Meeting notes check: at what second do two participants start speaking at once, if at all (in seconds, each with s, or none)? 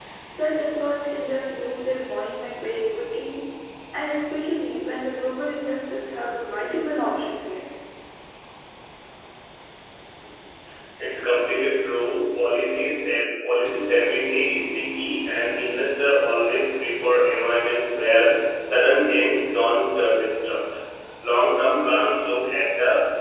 none